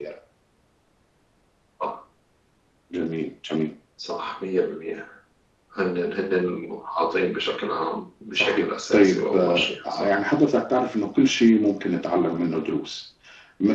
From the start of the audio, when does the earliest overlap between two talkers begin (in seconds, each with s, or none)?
8.3 s